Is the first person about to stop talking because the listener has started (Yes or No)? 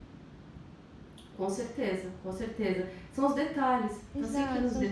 Yes